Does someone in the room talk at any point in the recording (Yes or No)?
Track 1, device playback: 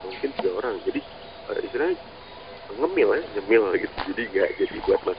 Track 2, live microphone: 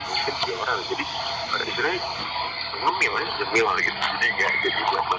No